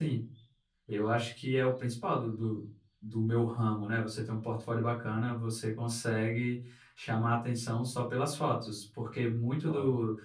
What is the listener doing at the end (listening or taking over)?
listening